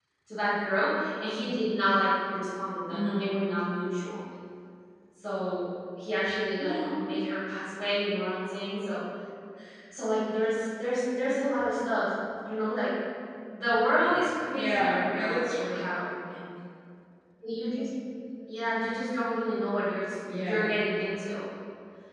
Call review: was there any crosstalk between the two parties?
Yes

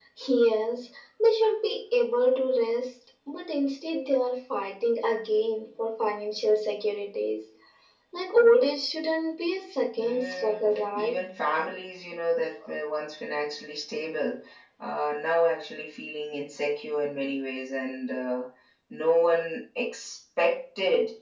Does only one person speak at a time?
No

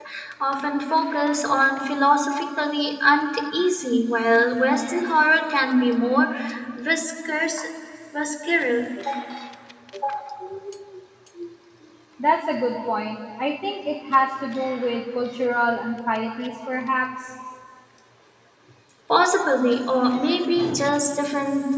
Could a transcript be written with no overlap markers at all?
Yes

